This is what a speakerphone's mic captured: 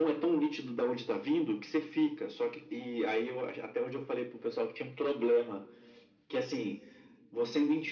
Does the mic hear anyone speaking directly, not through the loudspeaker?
No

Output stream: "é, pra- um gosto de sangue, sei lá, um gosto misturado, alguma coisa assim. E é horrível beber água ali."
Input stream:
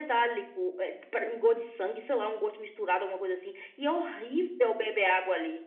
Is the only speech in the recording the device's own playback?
Yes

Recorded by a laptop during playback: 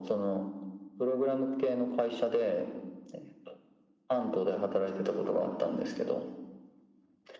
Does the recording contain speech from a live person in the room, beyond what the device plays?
No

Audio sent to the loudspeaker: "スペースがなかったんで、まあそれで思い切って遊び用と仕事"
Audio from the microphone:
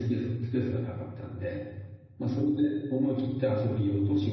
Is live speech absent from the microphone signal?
Yes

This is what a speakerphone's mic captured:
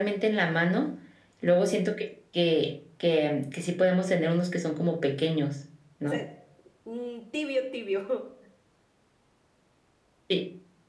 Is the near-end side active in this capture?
Yes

